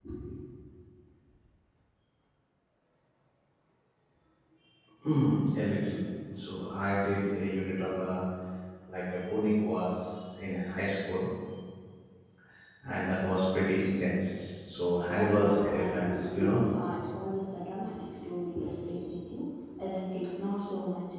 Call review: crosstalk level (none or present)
present